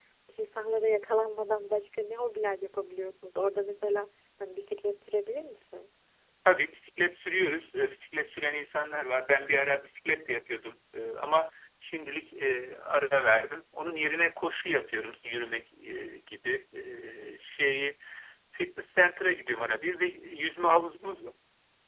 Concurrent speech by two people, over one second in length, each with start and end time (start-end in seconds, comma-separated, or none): none